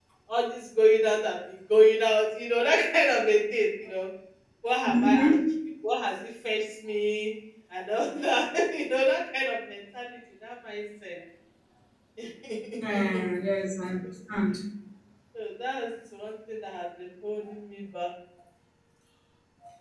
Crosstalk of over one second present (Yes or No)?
No